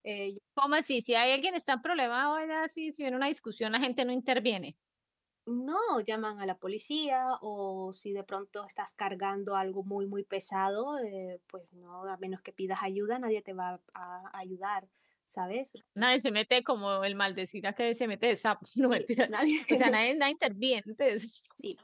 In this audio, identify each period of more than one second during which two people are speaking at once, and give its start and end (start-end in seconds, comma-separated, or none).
none